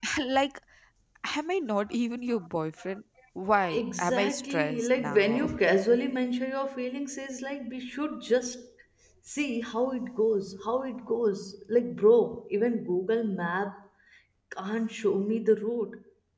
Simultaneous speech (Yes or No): Yes